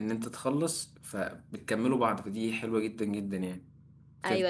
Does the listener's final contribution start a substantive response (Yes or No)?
Yes